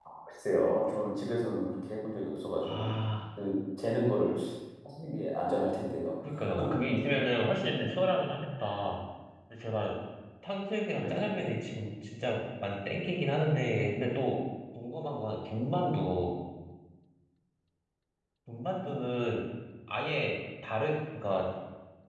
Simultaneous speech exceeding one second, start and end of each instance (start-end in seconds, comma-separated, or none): none